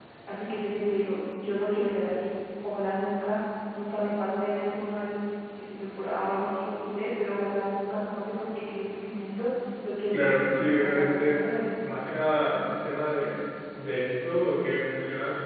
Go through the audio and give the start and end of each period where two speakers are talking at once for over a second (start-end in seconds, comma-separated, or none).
10.1-11.4